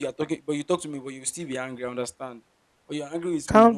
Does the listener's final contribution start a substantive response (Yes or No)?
Yes